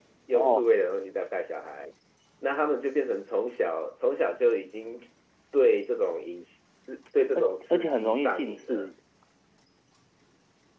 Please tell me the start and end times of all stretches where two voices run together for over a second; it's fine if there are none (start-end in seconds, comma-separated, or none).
7.4-8.9